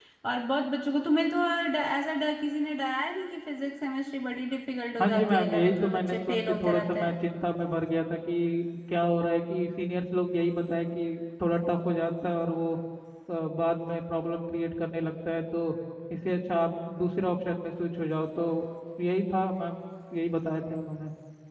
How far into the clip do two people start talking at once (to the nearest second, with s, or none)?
5 s